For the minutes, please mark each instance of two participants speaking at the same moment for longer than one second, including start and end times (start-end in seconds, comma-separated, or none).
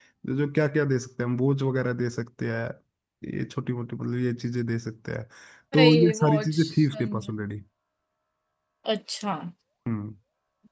5.7-7.3